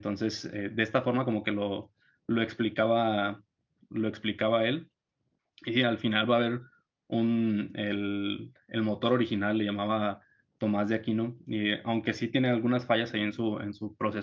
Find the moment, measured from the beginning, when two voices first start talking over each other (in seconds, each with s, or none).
none